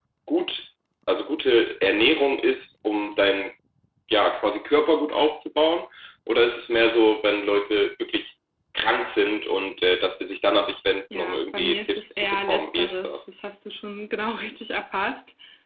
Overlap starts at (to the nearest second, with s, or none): 11 s